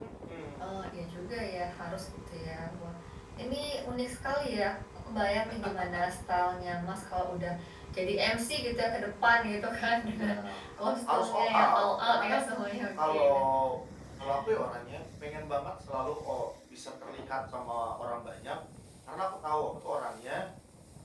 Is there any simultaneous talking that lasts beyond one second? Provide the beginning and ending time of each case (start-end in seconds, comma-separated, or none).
11.1-12.4